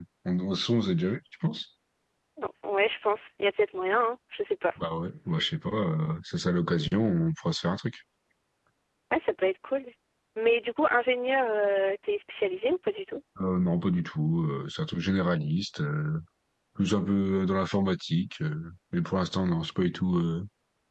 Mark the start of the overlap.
none

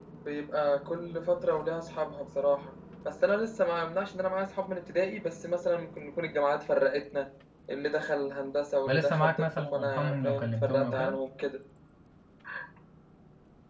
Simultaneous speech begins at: 8.9 s

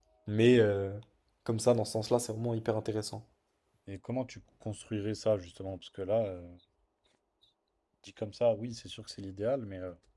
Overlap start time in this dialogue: none

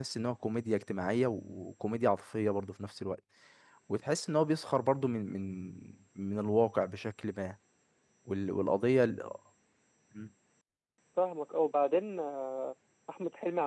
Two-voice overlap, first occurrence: none

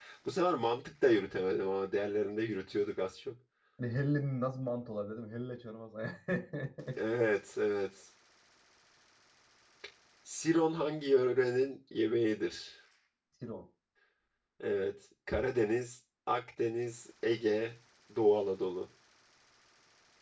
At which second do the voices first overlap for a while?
none

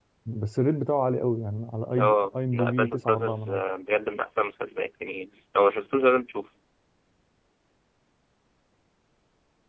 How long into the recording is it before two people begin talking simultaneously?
2.0 s

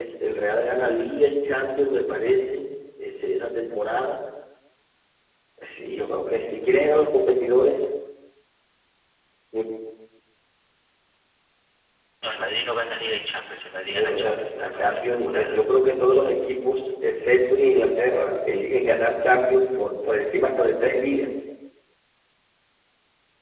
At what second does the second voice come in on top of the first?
13.9 s

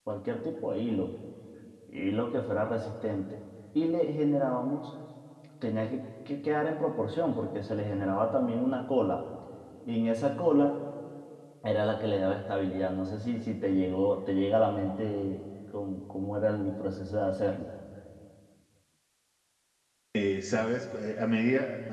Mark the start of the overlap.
none

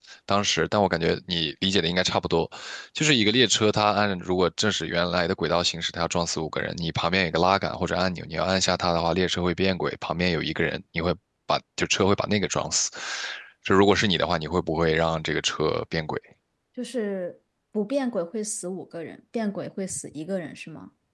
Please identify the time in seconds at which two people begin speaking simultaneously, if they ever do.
none

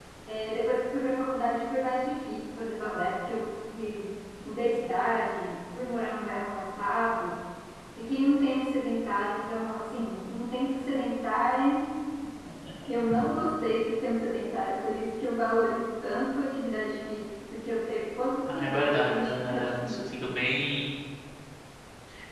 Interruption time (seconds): 18.5 s

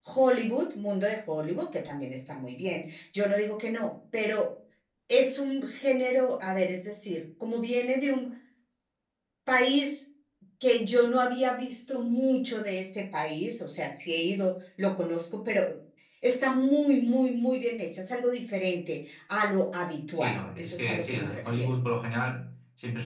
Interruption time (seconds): 20.1 s

